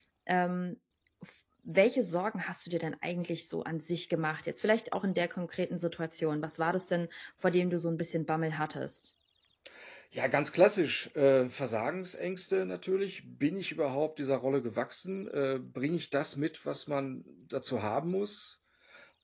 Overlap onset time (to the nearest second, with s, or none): none